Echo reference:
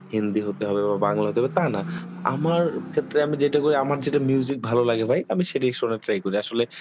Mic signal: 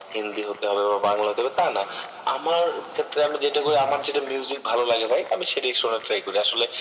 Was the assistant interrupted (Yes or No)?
Yes